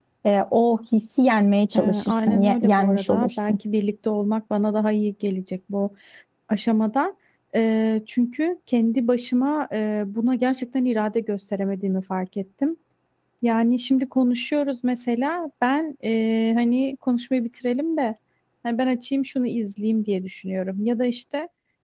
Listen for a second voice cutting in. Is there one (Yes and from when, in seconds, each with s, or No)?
Yes, from 1.7 s